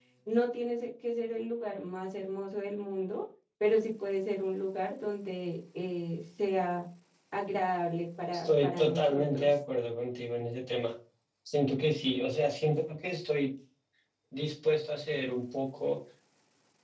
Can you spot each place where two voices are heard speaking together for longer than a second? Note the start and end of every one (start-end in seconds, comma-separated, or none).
8.3-9.5